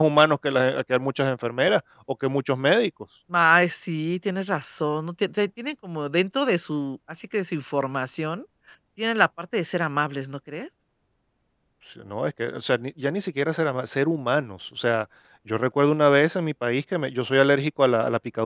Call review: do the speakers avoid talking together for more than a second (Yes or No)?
Yes